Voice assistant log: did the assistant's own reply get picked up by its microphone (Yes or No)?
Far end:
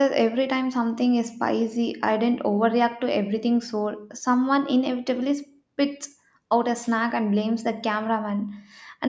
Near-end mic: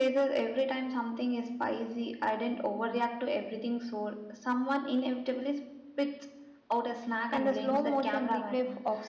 Yes